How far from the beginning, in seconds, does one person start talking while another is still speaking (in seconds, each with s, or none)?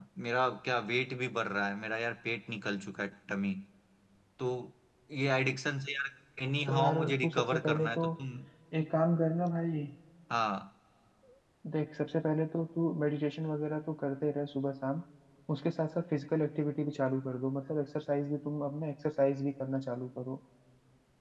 6.7 s